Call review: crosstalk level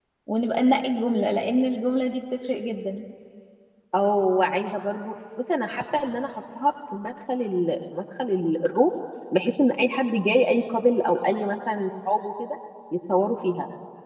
none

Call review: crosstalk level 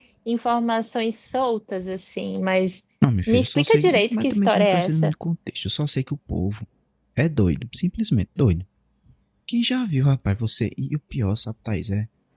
present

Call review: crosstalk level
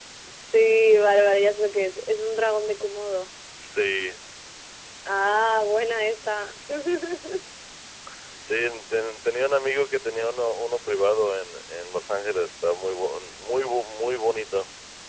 none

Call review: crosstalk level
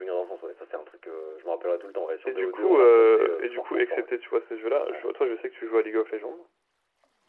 present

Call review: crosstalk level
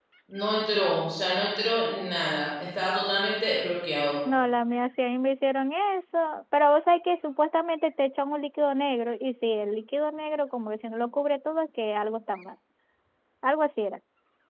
none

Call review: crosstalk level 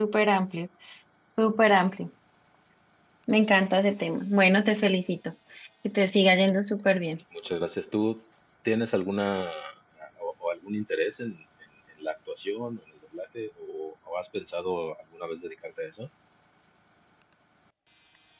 none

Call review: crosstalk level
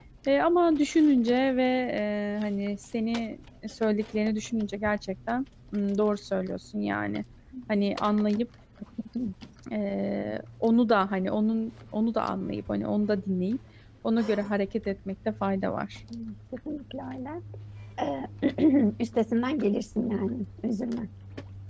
none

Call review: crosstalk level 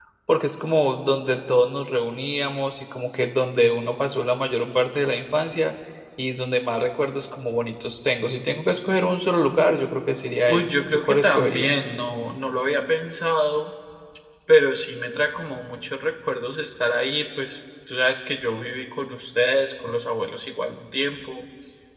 present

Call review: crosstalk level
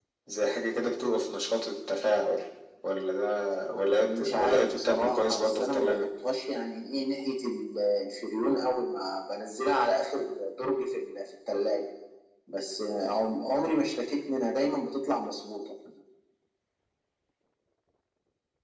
present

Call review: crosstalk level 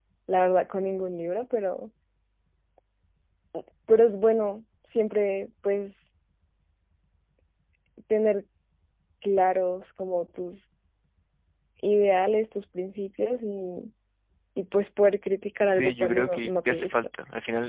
present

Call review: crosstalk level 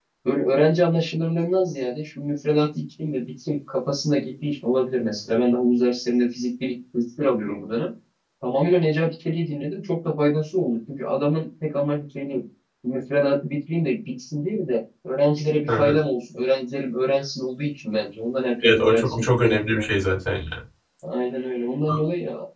present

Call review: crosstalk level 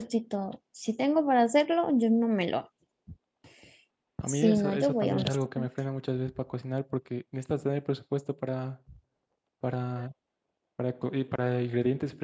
present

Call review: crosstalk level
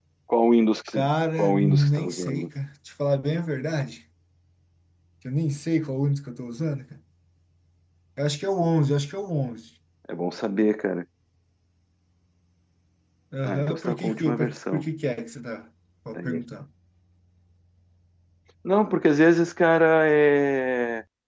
present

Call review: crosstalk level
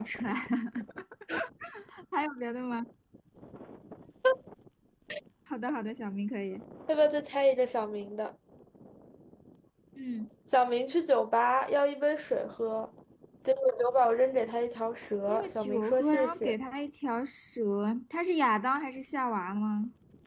present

